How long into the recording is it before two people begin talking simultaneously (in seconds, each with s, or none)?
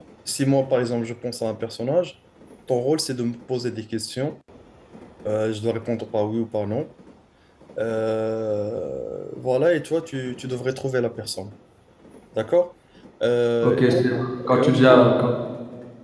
13.6 s